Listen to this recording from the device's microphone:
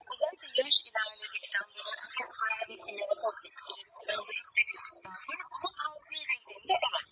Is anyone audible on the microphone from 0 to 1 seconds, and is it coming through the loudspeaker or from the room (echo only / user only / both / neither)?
echo only